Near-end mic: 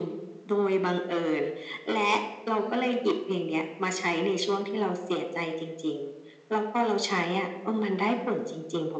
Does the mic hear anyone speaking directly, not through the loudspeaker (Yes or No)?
Yes